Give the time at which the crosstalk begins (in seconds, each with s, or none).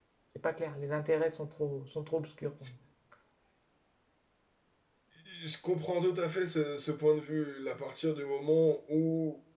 none